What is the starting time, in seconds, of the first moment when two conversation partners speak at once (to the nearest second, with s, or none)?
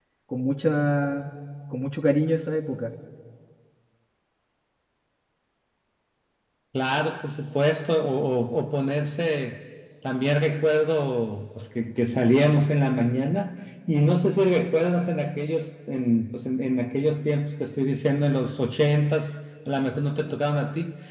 none